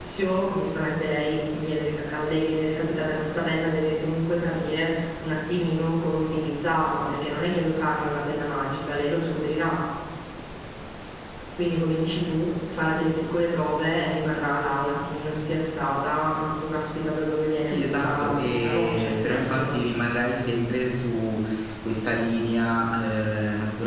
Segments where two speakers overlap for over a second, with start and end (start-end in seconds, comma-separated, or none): 17.6-19.8